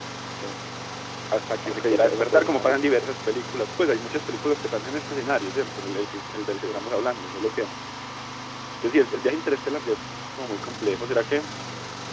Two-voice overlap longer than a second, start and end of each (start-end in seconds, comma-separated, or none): 1.6-3.0